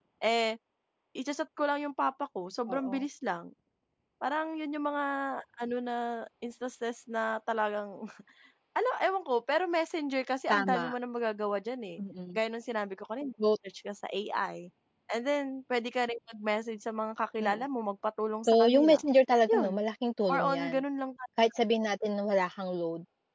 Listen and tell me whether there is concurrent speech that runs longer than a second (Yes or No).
No